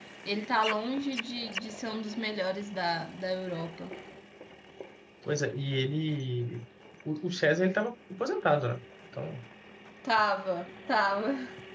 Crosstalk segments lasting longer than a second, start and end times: none

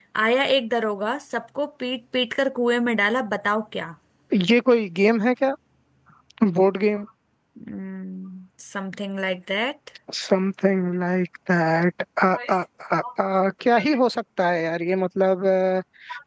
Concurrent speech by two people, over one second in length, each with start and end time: none

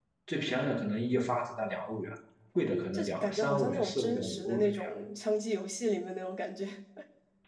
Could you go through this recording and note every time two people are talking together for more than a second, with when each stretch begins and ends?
2.9-4.7

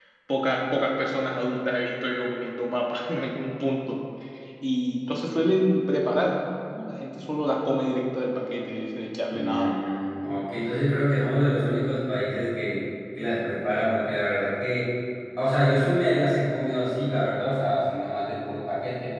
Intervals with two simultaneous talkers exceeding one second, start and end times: none

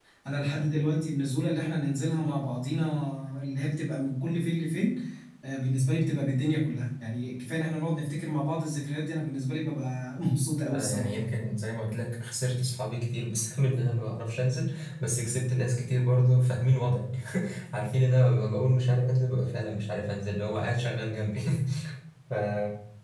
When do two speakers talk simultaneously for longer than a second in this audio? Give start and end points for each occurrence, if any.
none

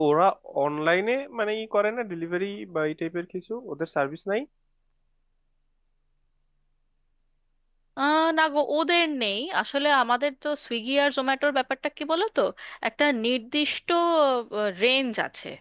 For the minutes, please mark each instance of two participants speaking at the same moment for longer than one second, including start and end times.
none

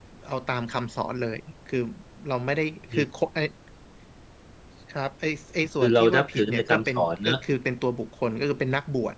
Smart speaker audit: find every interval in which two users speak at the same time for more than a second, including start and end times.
5.8-7.4

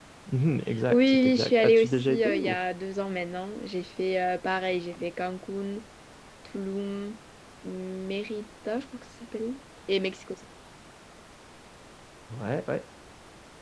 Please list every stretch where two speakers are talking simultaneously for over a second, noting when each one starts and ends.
0.9-2.6

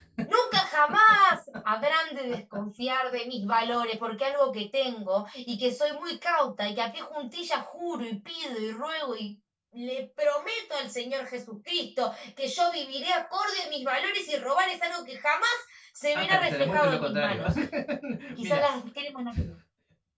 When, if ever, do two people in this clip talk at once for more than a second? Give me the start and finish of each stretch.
16.1-17.4

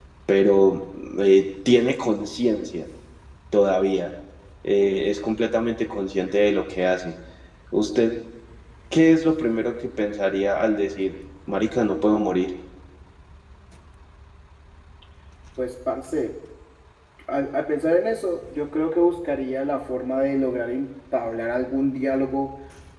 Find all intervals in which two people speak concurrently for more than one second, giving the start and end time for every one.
none

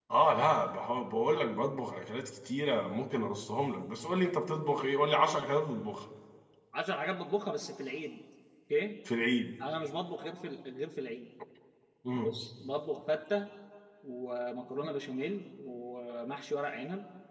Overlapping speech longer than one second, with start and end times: none

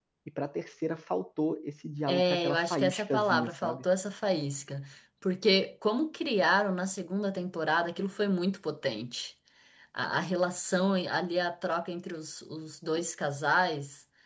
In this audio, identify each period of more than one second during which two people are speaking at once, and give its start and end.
2.1-3.9

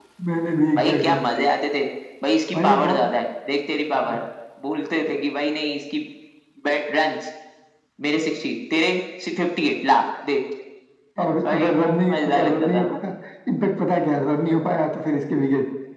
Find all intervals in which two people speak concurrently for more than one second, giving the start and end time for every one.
11.2-12.9

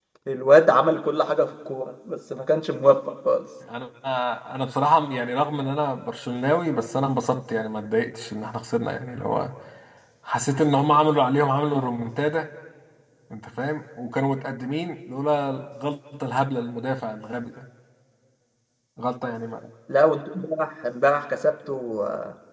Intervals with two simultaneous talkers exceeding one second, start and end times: none

